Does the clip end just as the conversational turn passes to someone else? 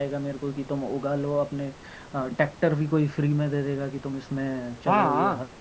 Yes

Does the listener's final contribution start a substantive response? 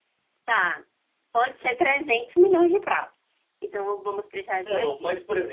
Yes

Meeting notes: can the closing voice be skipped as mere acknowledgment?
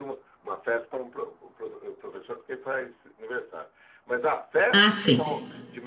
Yes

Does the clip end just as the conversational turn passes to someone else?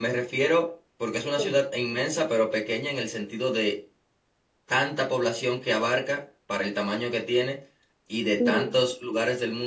No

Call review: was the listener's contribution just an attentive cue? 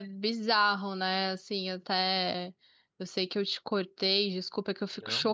Yes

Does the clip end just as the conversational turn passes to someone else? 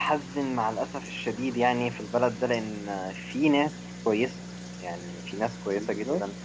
No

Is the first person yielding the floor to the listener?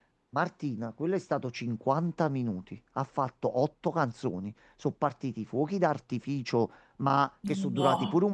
No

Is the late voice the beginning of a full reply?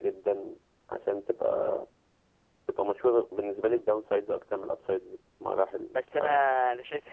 Yes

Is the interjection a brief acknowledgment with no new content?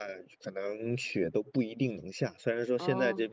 Yes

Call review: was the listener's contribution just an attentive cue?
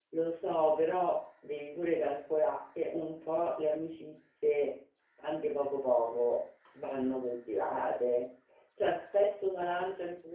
Yes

